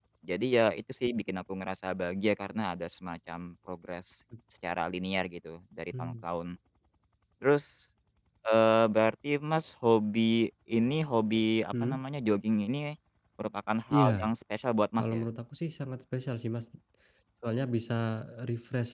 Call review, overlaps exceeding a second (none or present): none